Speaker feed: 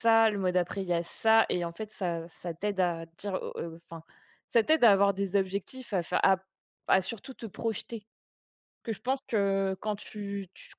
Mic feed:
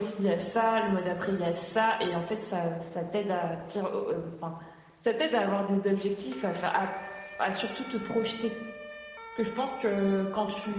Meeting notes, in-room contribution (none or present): none